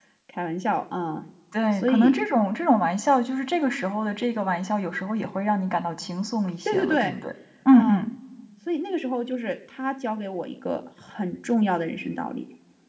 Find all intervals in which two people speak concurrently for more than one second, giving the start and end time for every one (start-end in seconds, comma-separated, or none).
none